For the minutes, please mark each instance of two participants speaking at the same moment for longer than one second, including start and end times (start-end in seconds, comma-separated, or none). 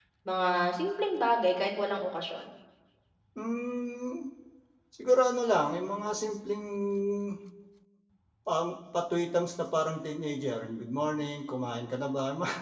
none